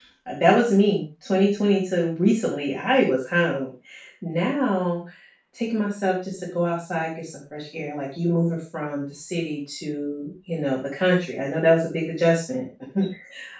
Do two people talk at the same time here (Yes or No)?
No